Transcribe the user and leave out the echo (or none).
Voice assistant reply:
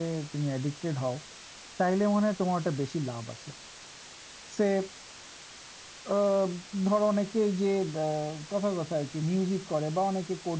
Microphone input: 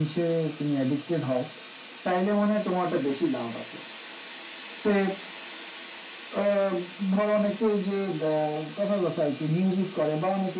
none